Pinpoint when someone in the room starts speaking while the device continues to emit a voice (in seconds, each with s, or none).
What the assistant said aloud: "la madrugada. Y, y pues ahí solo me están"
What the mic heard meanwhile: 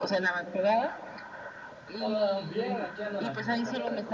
2.0 s